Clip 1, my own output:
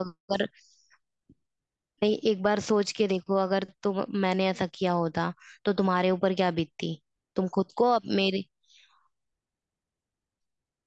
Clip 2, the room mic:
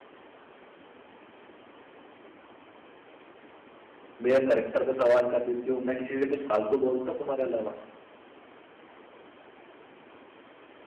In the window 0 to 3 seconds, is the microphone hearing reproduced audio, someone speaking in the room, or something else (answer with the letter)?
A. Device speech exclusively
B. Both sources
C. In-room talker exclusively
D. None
D